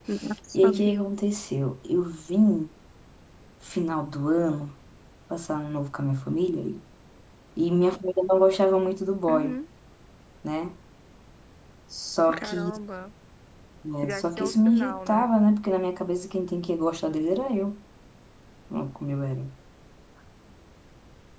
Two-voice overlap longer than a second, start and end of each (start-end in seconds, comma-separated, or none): 14.0-15.3